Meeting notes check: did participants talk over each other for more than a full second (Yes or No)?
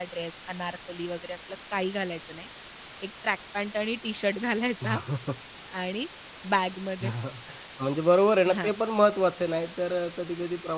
No